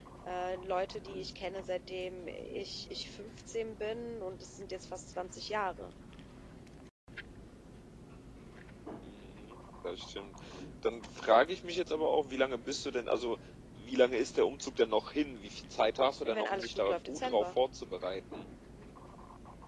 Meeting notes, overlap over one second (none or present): present